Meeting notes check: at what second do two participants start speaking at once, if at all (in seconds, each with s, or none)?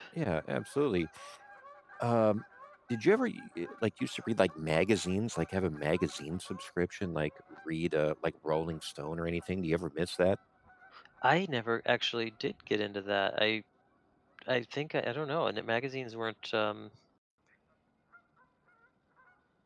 none